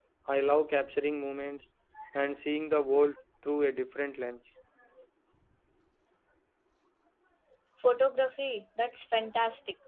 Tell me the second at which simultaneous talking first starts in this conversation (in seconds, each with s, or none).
none